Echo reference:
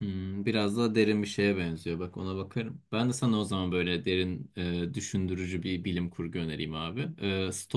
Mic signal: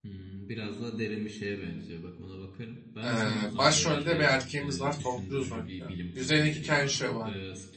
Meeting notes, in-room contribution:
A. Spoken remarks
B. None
A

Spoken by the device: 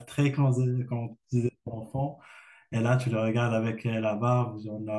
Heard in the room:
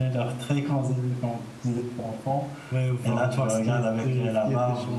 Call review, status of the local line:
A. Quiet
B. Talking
B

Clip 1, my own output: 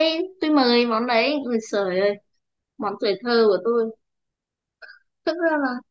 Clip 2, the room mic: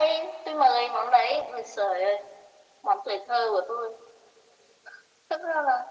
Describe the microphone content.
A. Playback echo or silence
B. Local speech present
A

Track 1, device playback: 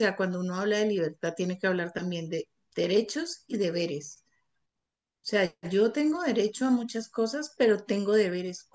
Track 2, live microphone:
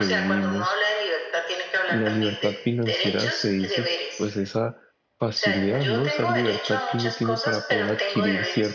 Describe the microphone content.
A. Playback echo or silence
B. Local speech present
B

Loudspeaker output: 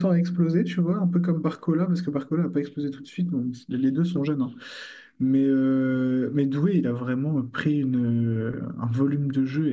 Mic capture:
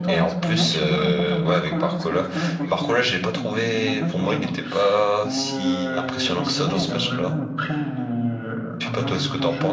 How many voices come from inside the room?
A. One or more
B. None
A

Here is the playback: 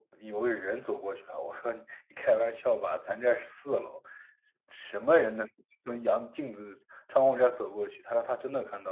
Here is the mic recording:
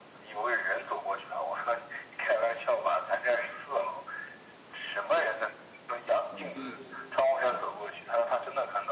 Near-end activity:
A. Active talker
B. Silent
A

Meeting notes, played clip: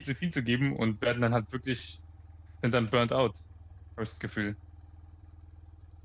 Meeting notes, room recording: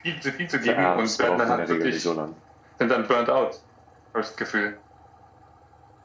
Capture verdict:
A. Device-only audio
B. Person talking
B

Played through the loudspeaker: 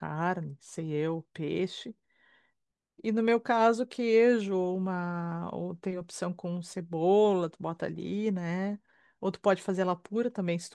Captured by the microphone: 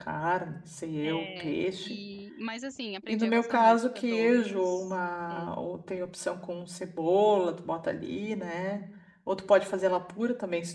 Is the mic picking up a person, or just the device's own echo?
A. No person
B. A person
B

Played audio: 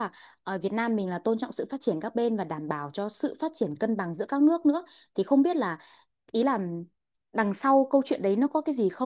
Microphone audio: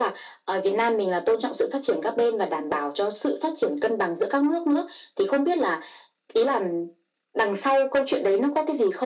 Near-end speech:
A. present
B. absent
B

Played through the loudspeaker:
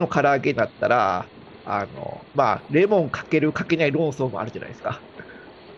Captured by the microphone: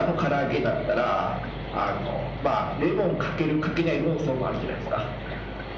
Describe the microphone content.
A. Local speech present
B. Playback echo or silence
B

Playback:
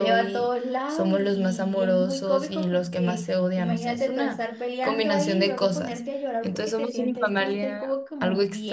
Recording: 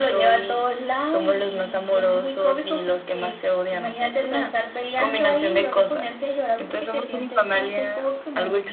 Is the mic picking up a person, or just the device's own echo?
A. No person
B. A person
A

